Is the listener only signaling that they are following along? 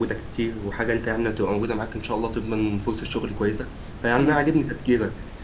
Yes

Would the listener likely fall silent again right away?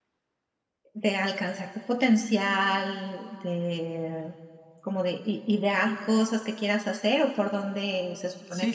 No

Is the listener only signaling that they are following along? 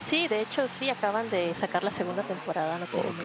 No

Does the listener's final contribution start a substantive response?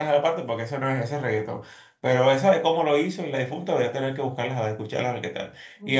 Yes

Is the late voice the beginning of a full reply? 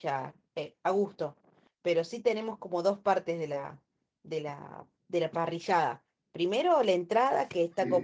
No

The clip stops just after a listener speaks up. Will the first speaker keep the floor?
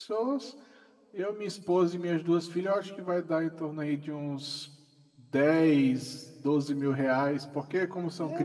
No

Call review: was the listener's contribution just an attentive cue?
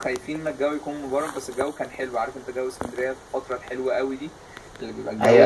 No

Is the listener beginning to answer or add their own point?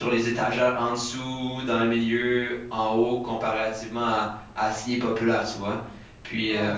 Yes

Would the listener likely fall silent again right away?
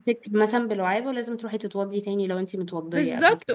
No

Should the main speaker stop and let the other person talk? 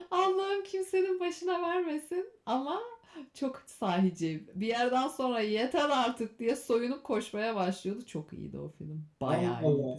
Yes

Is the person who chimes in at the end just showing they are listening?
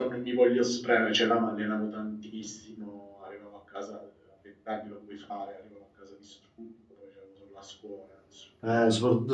No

